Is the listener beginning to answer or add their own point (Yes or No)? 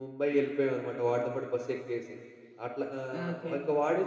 No